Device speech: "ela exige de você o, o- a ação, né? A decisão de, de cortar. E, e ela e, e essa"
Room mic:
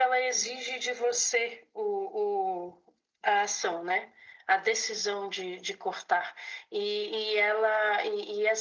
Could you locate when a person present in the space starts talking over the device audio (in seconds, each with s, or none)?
none